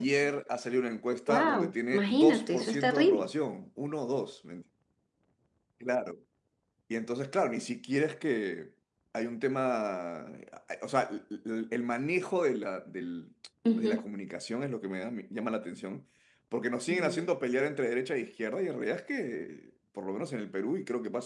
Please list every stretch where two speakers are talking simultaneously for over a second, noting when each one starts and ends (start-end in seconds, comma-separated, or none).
1.3-3.2